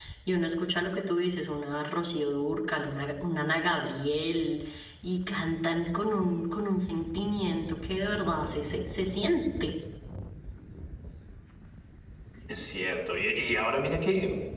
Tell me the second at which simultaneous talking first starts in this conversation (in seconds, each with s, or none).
none